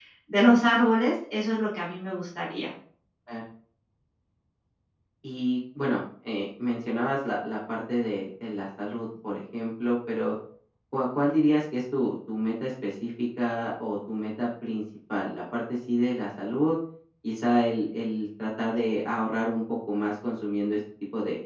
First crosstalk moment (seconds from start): none

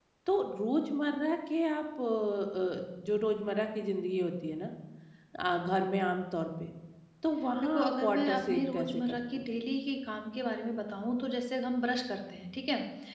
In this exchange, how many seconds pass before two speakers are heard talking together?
7.6 s

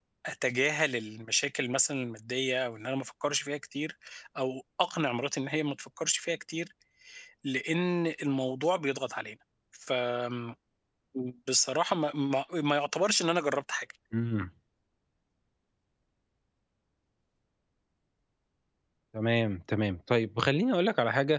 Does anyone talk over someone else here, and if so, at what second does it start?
none

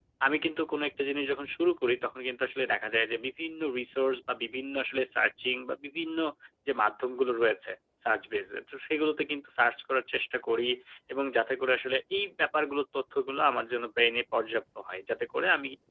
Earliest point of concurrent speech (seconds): none

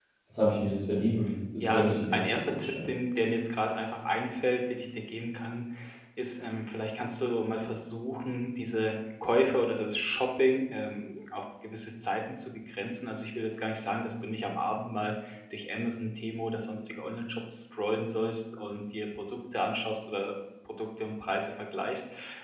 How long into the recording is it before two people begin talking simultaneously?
1.6 s

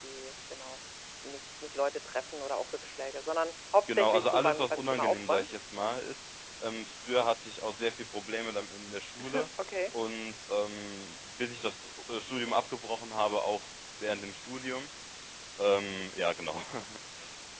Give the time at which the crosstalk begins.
3.9 s

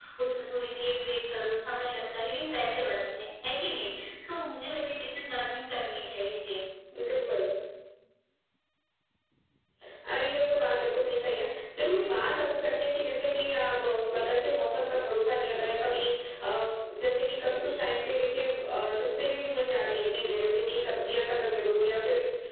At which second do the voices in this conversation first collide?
none

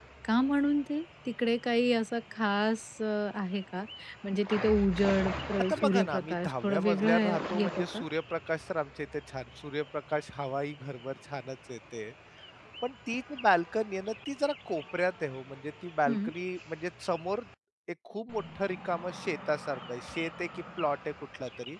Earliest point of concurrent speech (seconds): 5.6 s

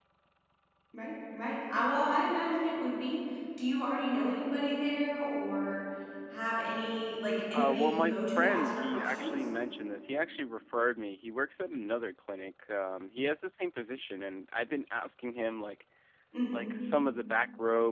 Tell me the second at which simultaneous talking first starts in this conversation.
7.5 s

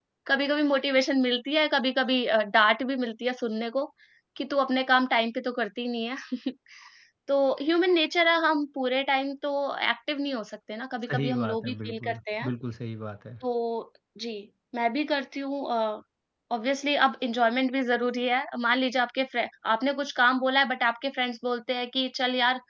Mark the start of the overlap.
11.0 s

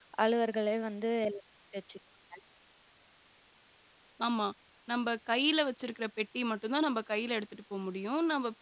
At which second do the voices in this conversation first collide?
none

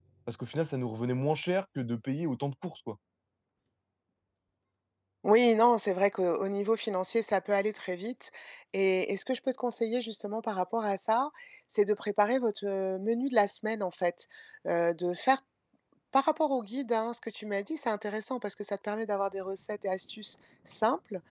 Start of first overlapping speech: none

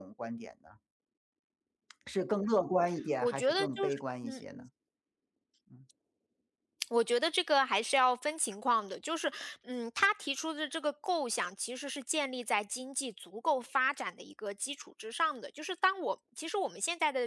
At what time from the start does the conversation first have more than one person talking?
3.2 s

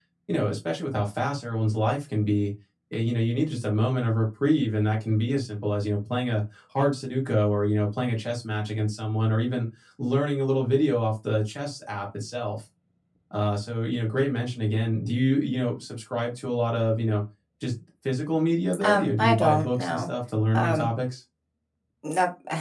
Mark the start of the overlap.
18.8 s

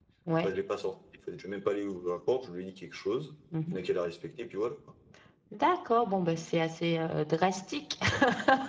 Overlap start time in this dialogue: none

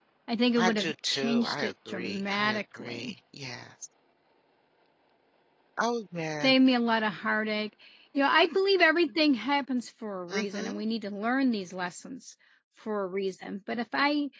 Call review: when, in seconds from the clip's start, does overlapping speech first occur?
0.6 s

